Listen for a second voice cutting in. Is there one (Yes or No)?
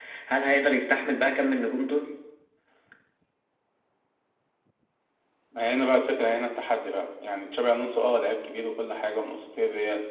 No